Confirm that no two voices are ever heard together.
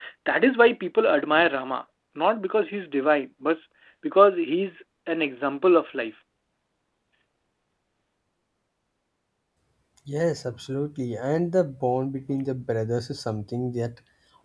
Yes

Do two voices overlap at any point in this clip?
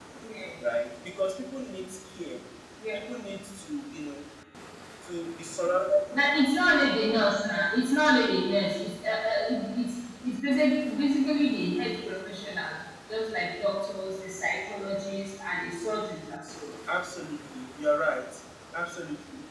No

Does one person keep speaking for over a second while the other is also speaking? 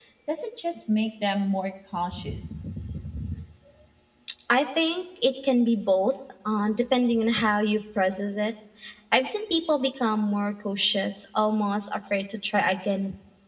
No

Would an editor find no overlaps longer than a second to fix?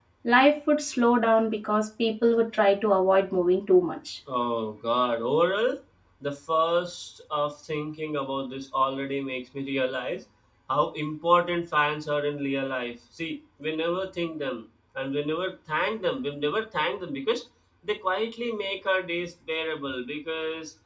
Yes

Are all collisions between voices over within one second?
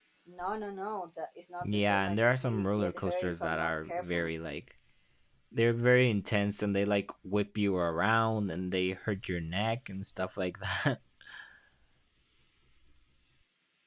No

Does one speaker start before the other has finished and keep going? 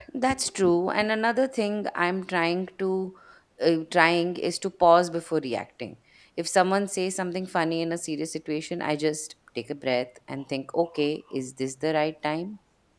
No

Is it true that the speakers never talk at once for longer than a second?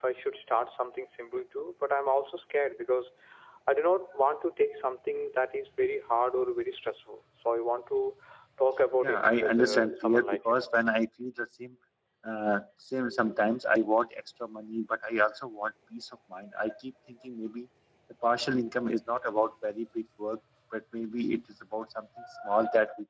No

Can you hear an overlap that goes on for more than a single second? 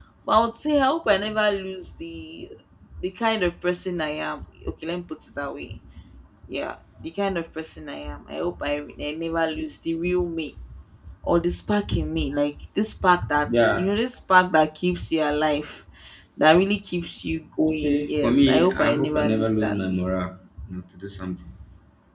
Yes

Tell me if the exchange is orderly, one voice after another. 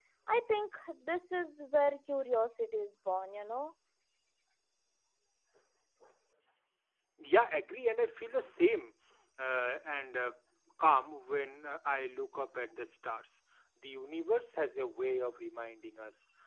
Yes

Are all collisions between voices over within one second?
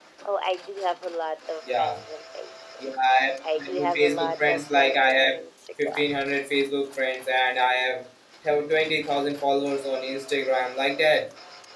No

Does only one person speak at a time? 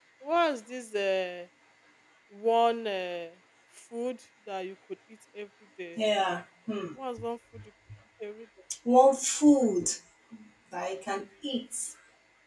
Yes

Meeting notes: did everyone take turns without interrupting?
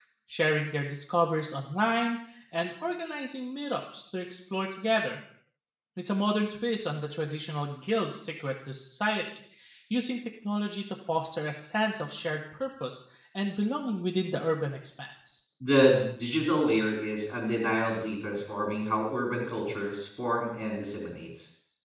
Yes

